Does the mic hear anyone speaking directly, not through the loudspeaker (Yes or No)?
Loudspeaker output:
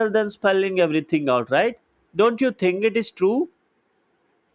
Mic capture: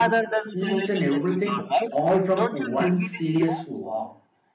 Yes